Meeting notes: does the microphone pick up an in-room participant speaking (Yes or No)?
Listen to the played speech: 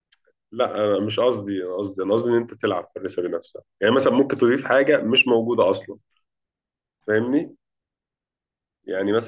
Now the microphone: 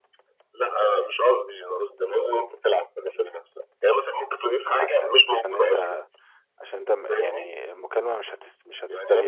Yes